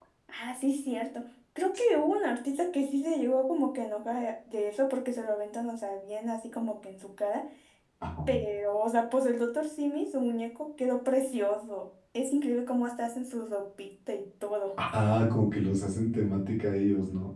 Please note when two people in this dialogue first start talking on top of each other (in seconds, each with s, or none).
none